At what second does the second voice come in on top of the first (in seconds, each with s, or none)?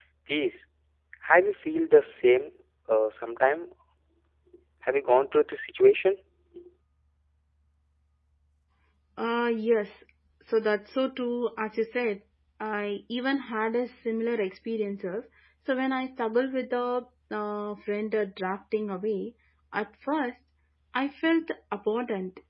none